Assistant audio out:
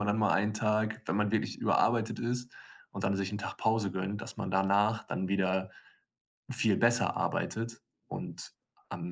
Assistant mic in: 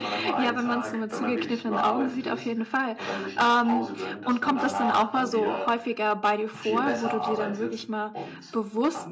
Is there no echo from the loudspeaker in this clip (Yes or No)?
No